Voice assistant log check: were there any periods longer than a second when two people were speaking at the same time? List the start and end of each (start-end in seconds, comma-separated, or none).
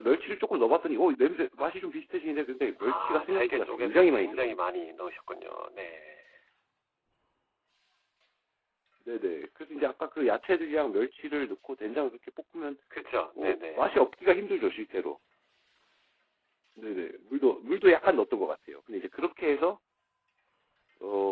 2.8-4.6